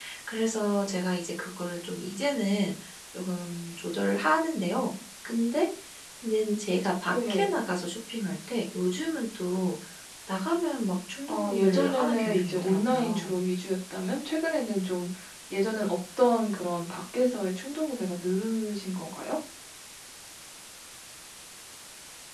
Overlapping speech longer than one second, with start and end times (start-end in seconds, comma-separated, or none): 11.3-13.4